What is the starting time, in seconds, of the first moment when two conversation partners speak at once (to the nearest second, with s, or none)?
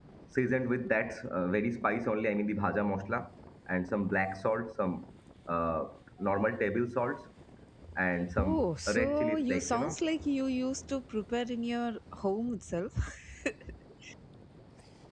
8 s